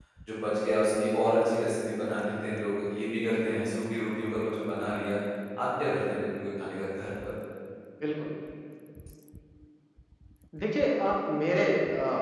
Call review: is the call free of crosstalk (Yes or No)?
Yes